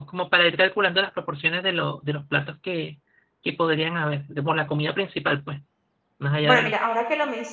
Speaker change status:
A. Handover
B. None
A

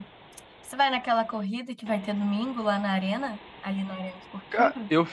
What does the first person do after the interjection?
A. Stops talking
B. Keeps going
A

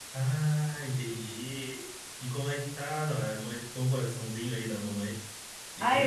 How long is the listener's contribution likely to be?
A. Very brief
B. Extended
B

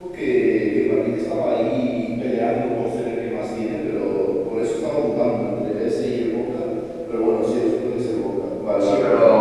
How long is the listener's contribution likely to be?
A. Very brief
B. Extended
B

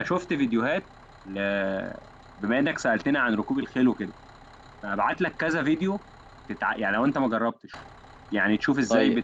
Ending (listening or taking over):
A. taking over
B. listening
B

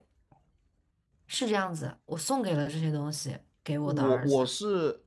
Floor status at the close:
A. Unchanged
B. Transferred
B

